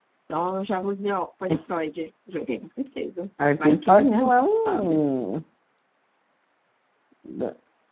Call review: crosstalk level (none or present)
present